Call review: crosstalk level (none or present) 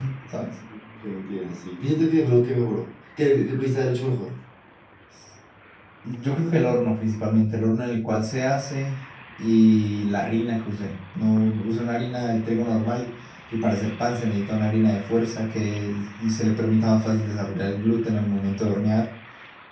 none